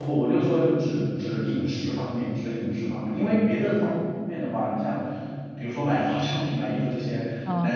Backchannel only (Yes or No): Yes